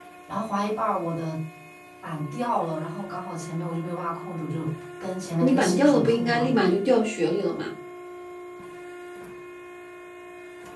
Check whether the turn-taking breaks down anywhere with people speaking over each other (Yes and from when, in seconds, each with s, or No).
Yes, from 5.4 s